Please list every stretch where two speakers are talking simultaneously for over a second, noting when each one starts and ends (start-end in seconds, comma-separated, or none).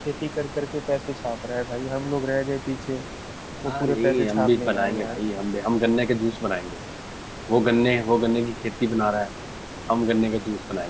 3.7-5.2